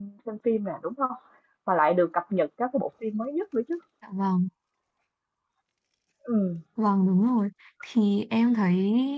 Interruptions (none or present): none